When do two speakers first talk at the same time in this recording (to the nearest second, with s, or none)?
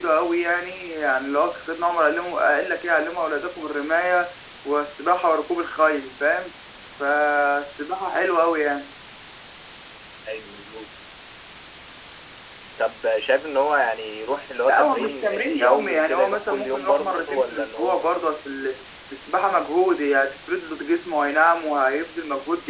15 s